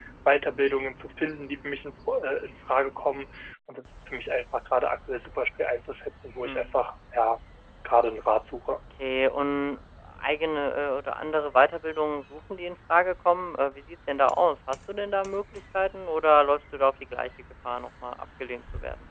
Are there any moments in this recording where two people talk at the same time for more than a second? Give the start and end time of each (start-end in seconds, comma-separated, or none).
none